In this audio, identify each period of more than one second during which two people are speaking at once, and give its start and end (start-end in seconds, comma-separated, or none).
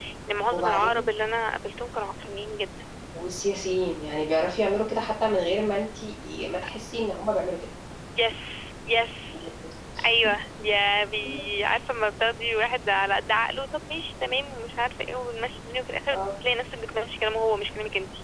none